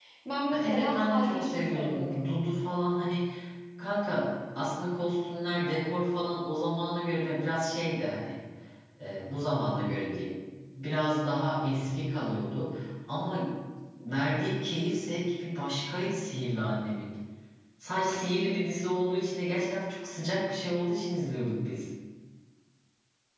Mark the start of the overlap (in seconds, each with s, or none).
0.6 s